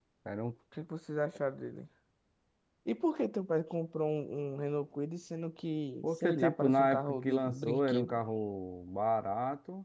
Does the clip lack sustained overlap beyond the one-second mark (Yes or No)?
No